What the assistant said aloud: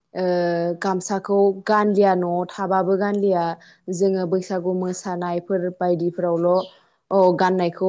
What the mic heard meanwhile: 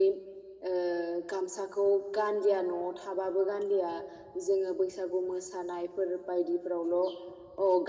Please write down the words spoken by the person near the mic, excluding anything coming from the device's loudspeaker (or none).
none